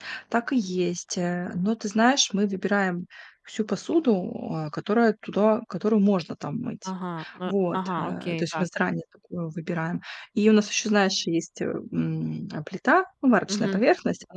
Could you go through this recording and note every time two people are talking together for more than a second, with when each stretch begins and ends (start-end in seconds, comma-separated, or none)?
7.4-8.7